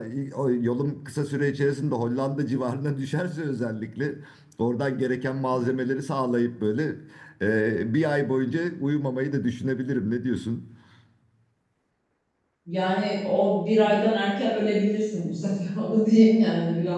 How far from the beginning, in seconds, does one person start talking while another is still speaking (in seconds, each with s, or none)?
none